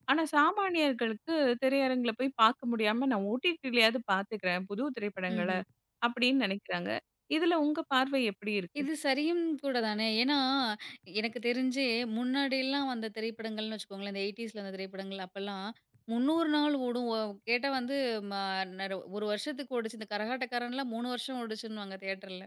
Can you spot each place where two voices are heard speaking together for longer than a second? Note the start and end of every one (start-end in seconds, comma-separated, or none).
none